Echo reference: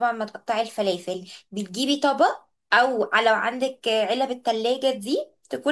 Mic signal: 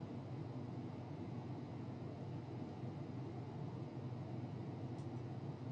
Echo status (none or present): none